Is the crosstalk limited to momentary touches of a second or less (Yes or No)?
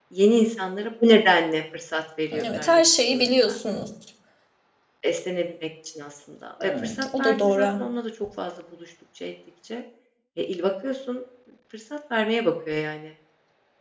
No